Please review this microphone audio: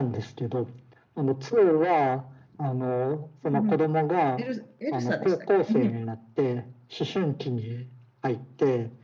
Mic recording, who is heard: both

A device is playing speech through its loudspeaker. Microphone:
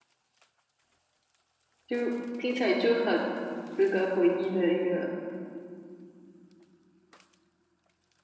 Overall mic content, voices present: user only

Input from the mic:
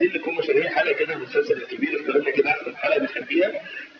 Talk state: echo only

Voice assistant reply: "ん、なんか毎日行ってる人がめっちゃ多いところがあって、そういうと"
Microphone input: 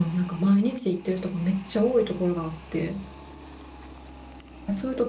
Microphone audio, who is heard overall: echo only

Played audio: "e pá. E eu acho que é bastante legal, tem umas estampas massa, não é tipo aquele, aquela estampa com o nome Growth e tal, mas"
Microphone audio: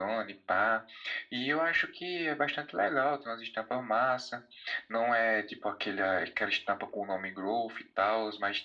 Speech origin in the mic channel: echo only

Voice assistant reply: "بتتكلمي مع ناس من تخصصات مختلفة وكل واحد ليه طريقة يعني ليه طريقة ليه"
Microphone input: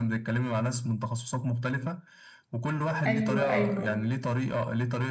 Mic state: both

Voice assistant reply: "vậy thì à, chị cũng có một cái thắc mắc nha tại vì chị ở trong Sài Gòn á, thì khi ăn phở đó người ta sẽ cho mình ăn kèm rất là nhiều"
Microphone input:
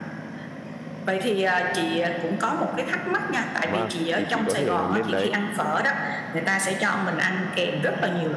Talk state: both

